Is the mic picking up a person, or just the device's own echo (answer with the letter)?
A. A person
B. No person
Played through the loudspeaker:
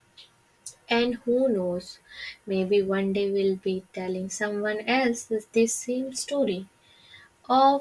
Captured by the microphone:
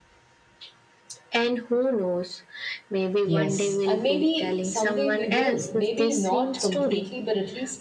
A